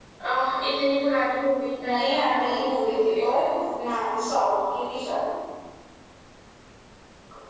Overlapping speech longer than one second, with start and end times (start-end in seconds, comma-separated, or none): 1.9-3.2